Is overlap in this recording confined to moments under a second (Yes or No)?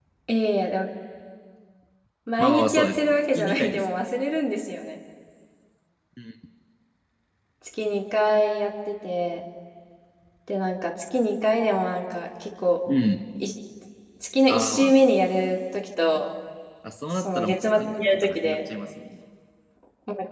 No